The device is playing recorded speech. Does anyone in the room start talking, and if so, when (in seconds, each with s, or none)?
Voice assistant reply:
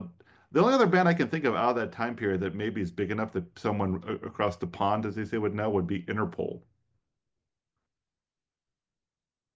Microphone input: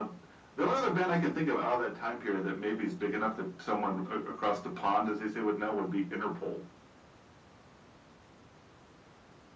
none